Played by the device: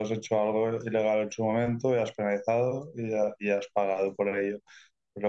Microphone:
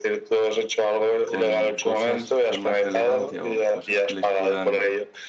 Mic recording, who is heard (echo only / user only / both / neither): both